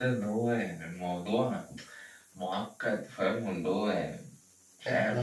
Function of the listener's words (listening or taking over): taking over